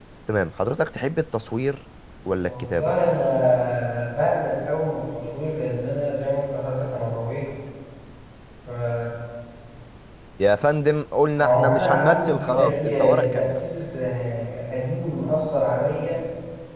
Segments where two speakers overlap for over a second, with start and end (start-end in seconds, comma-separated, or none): 11.4-13.6